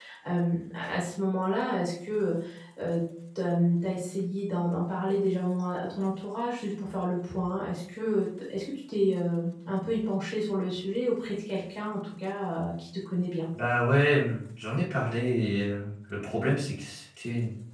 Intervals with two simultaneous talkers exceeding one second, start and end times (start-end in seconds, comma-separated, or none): none